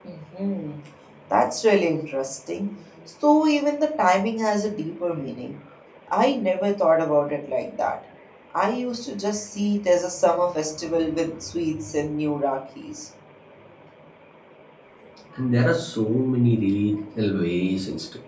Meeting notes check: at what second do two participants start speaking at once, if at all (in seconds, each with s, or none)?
none